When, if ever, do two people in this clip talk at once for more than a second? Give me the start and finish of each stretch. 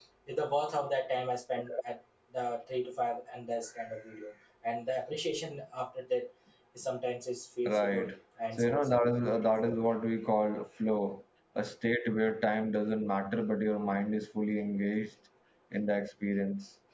8.6-10.0

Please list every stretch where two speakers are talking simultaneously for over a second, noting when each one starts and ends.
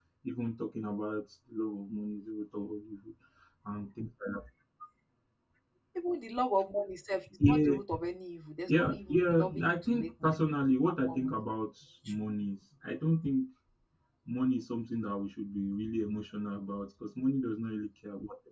8.7-10.4

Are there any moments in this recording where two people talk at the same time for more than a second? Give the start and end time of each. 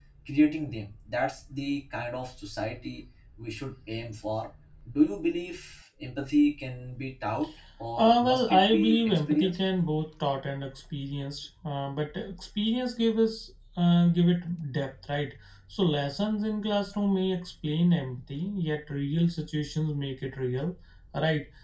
8.0-9.6

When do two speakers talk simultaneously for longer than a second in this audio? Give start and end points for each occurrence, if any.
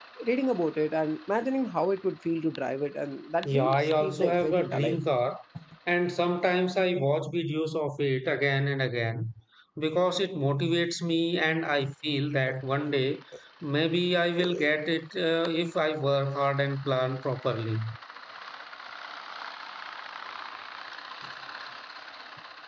3.4-5.0

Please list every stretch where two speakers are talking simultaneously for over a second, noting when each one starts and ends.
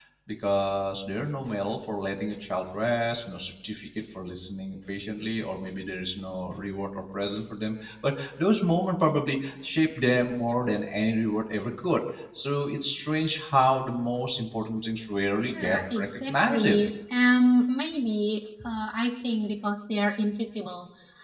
15.4-16.6

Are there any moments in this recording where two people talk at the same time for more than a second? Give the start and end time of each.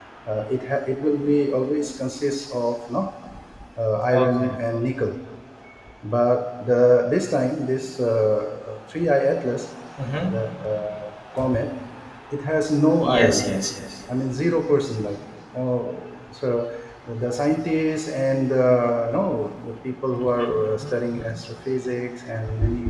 none

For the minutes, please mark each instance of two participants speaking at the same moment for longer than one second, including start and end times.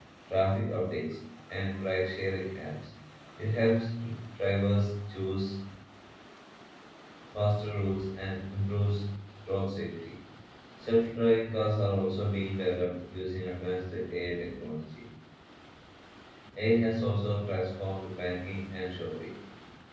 none

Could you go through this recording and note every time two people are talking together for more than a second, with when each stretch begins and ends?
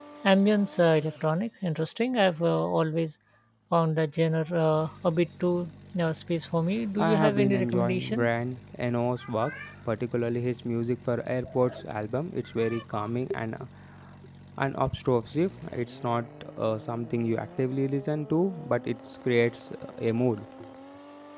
7.0-8.3

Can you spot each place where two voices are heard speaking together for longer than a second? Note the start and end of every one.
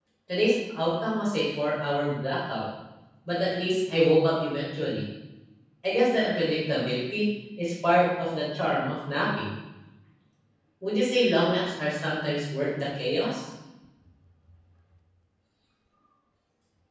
none

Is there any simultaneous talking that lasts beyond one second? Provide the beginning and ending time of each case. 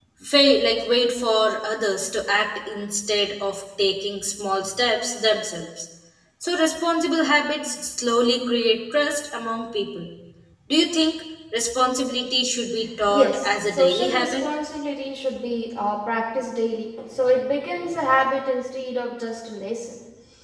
13.1-14.4

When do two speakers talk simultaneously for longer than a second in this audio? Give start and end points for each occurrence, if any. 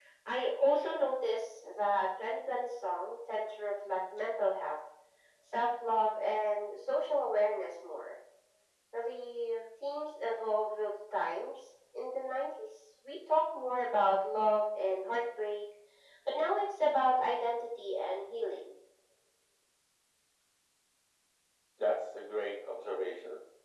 none

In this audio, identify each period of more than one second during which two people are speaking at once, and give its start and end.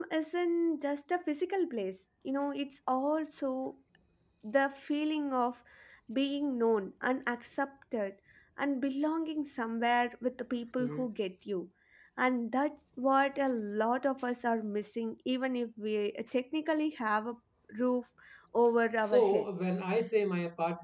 none

